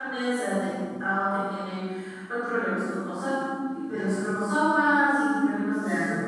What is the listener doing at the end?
listening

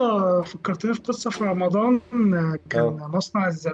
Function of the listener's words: listening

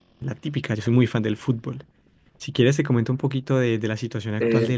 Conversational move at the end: taking over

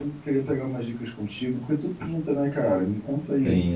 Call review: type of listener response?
listening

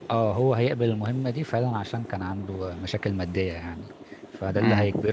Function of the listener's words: listening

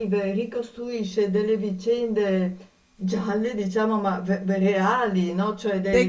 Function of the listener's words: taking over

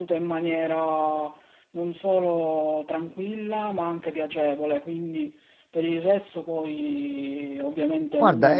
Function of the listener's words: taking over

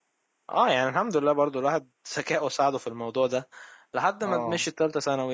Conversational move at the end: listening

